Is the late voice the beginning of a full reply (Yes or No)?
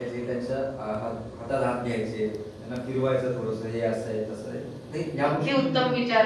Yes